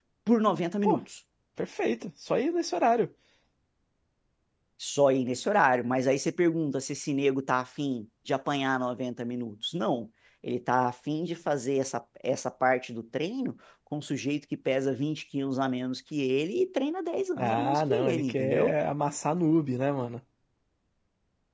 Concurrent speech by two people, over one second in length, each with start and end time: 17.4-18.8

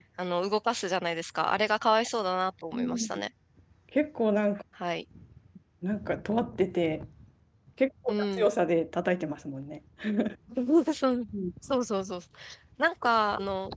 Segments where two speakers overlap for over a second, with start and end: none

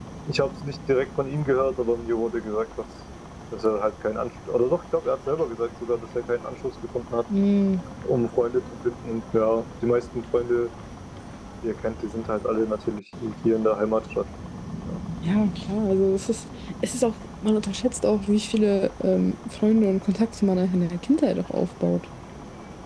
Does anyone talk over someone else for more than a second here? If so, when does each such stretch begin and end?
none

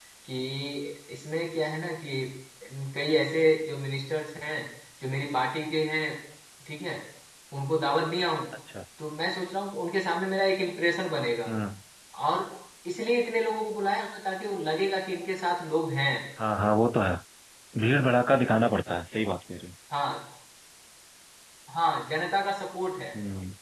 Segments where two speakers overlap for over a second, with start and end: none

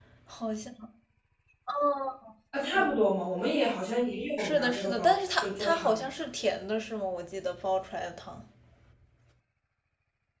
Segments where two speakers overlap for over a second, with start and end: 4.4-6.0

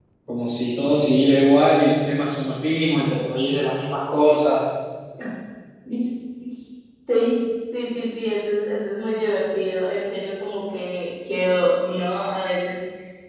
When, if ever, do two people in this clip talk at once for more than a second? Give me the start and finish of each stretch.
none

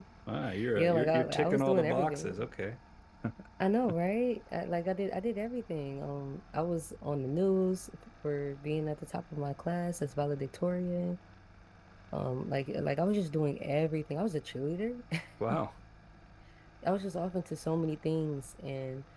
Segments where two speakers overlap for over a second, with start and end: 0.8-2.5

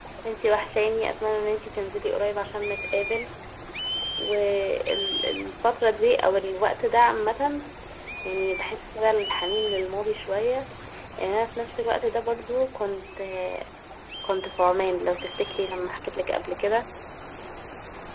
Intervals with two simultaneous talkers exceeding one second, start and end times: none

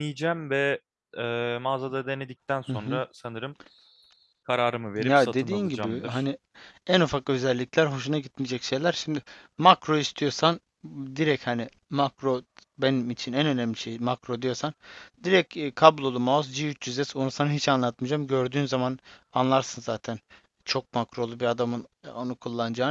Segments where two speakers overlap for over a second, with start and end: 5.0-6.2

